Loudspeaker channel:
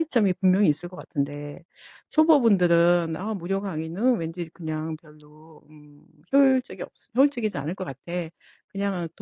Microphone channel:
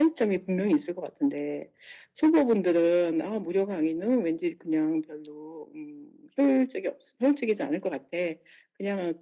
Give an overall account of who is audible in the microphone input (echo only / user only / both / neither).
echo only